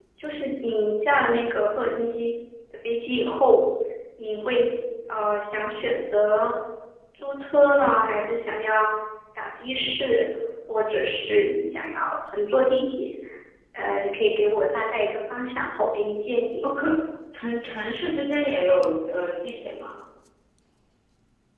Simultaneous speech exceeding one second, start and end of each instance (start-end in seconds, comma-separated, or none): none